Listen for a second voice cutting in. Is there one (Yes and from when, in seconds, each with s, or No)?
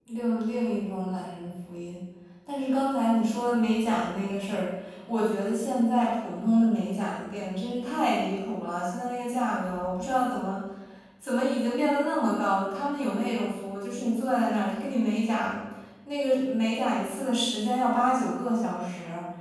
No